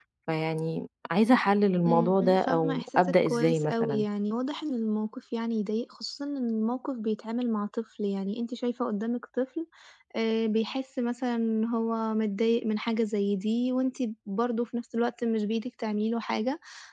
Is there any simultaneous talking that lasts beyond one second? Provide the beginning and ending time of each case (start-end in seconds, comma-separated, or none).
1.9-4.0